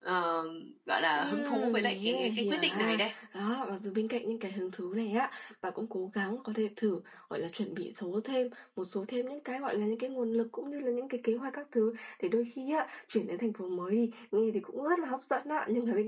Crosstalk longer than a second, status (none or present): present